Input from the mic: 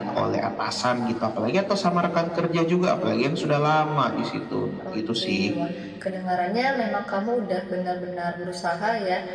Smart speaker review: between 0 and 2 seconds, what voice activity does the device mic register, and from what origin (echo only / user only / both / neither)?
echo only